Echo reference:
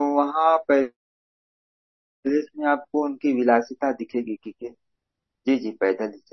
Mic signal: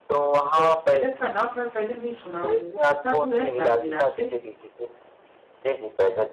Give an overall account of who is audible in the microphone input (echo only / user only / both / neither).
both